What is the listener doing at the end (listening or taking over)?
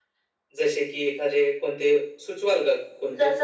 taking over